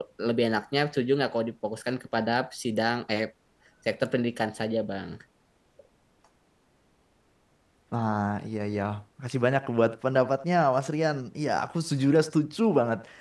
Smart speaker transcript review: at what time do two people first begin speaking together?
none

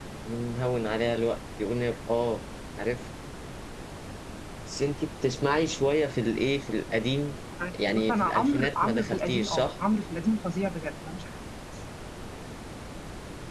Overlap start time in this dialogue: 7.9 s

